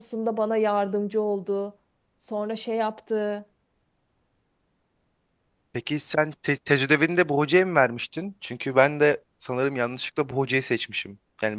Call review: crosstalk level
none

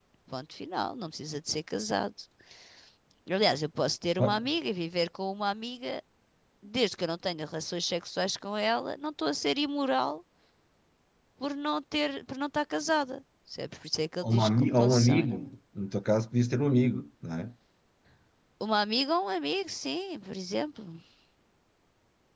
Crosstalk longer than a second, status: present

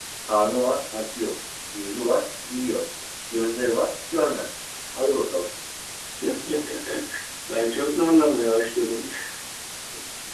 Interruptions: none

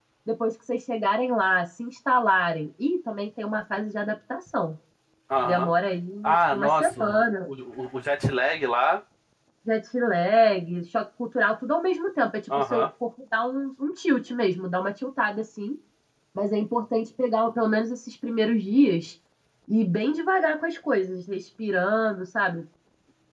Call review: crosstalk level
present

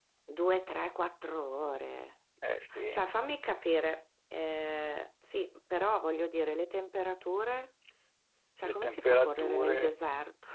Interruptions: present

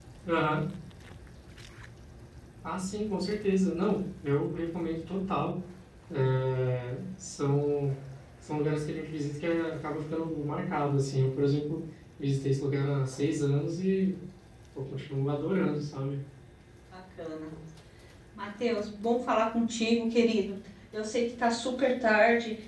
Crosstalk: none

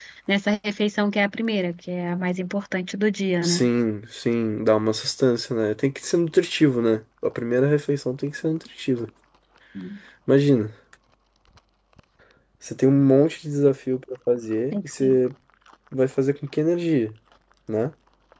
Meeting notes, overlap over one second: none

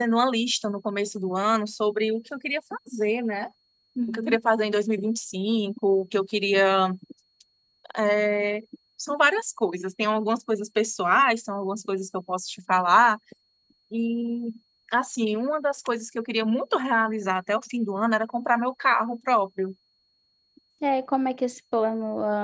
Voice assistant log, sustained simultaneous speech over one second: none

